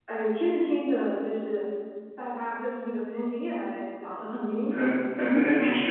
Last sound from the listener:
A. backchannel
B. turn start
B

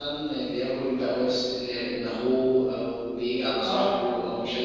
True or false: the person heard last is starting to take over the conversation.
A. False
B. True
B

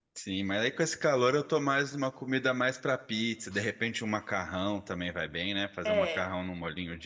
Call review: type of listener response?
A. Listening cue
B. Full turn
A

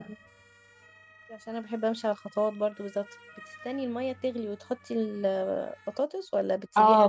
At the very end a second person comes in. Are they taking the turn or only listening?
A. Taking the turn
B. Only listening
A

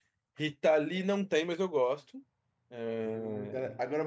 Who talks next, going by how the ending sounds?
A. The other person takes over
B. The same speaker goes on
A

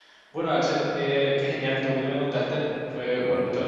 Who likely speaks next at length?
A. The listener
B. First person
B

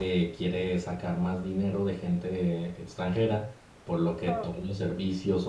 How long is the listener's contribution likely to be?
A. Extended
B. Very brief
B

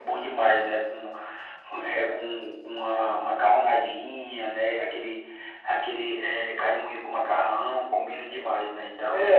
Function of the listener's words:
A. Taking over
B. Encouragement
A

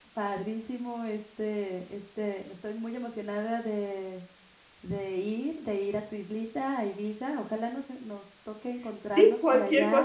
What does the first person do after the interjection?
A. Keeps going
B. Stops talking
B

